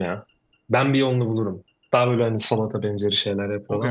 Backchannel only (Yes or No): No